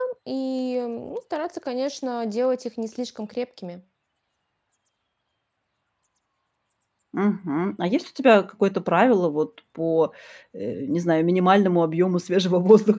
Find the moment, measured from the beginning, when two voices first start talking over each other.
none

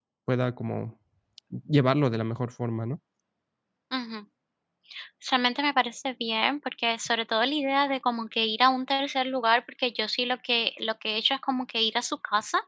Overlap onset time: none

